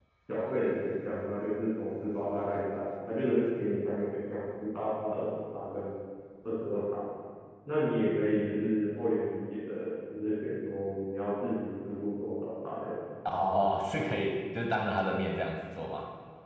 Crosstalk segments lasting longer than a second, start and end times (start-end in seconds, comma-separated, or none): none